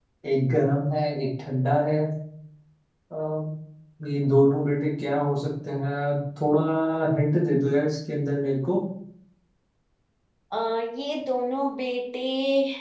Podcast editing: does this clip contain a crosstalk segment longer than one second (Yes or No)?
No